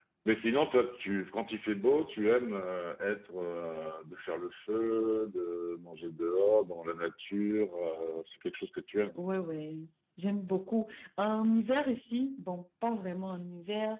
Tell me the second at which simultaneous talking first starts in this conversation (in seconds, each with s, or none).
none